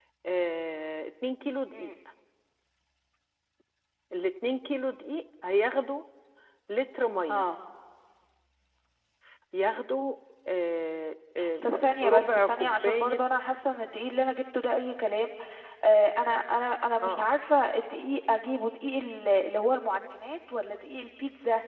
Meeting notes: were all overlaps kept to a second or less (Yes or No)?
No